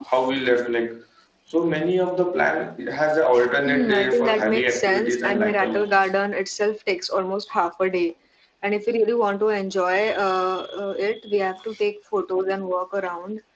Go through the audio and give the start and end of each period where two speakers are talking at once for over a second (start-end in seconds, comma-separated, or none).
3.6-6.1